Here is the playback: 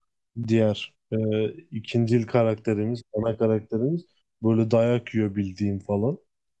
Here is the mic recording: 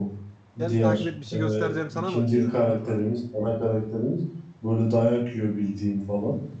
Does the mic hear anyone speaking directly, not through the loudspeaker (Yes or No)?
Yes